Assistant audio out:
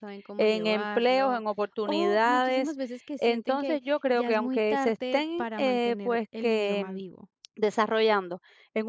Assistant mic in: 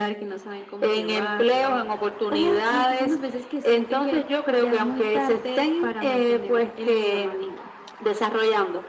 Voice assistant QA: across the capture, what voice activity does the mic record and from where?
echo only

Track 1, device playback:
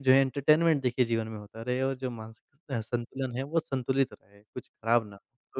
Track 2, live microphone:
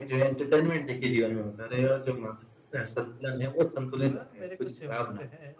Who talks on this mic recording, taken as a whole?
both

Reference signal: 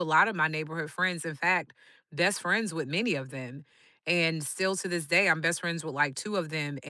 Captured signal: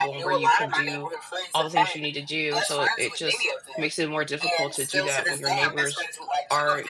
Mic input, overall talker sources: both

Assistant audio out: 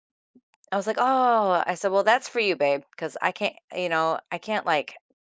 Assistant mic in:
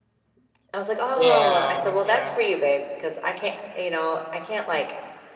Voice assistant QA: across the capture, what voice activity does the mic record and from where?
both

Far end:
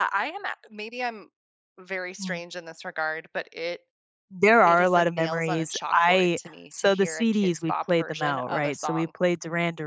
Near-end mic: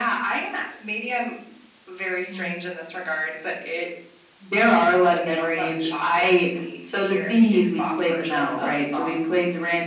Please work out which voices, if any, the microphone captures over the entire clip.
echo only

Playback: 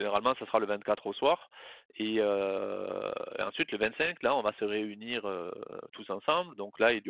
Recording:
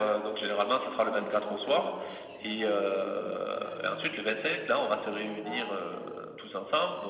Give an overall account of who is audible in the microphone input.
both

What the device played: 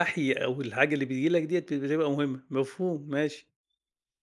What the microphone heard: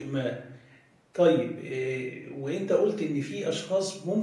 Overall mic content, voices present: user only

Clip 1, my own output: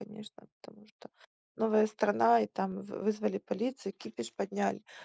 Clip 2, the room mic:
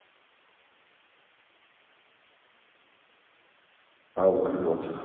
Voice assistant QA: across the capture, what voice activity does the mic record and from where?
user only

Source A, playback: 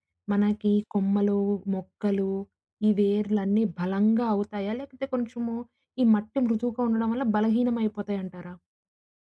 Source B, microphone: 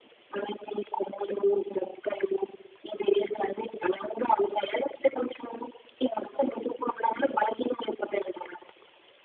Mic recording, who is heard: echo only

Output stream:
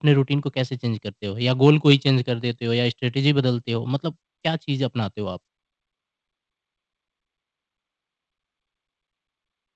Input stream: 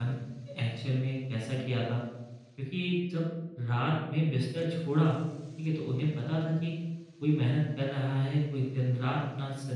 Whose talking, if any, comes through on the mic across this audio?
user only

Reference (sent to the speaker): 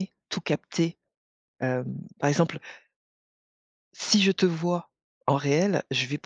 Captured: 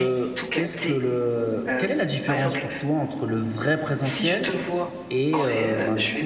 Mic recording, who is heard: both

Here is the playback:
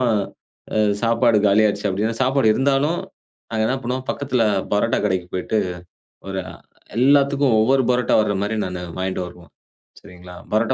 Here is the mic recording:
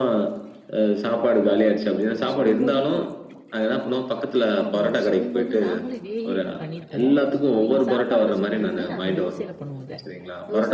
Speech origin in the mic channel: both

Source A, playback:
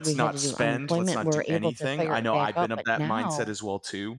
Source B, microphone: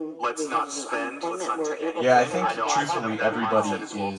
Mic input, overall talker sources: both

